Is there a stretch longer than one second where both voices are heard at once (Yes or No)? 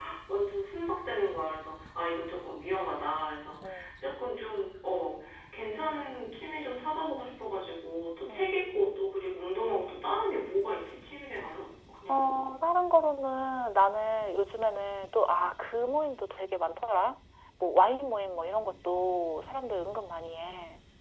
No